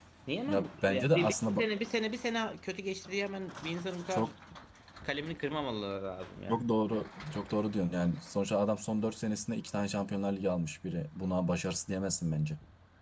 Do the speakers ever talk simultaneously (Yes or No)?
Yes